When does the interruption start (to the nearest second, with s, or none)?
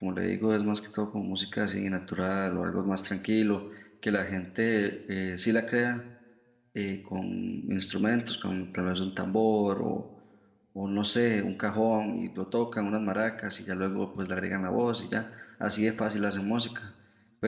none